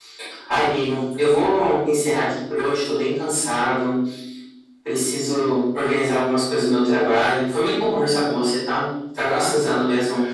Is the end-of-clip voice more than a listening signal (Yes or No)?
No